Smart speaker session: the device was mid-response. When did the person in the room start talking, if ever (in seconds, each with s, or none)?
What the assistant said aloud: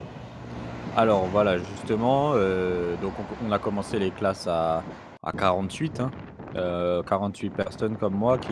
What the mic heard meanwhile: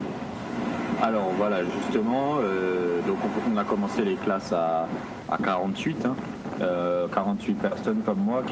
none